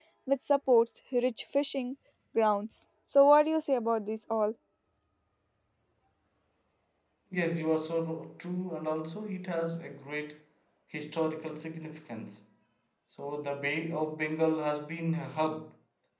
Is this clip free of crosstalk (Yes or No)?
Yes